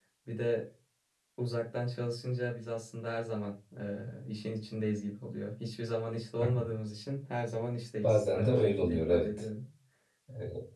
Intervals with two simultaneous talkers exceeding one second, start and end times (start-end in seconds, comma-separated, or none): 8.0-9.3